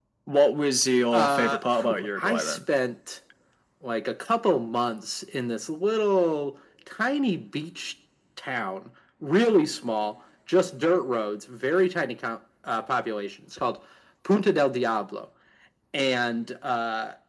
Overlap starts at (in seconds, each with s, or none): 1.1 s